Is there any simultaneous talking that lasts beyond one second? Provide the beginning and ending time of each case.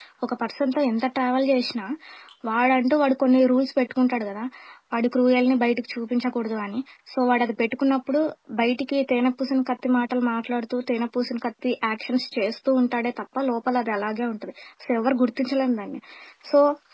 none

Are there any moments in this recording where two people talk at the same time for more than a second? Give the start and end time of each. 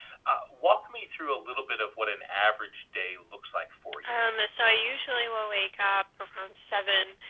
none

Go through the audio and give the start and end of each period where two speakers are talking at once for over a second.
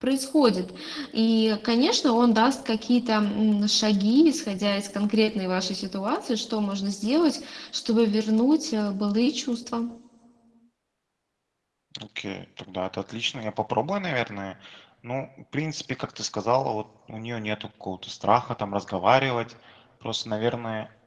none

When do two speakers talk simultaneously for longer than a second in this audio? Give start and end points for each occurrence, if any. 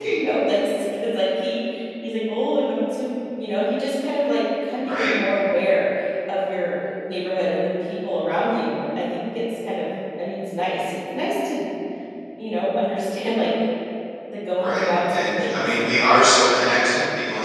14.6-16.0

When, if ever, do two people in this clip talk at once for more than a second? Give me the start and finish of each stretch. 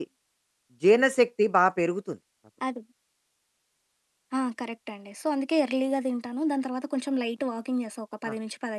none

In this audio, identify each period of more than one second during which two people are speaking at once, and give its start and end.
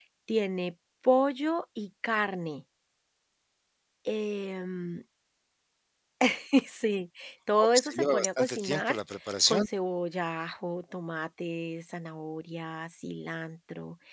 7.6-9.0

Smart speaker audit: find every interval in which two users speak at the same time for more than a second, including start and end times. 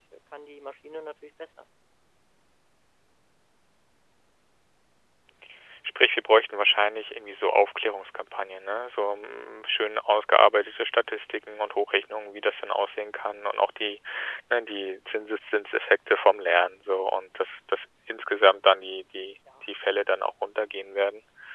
none

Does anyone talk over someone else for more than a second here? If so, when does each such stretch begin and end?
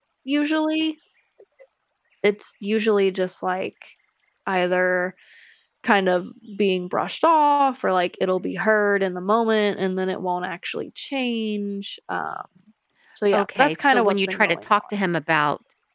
13.3-14.8

